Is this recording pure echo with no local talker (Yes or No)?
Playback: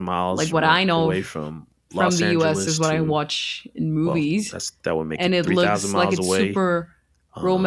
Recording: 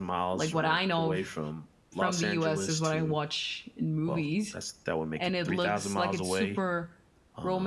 Yes